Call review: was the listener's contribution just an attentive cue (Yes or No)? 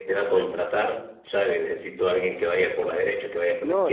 No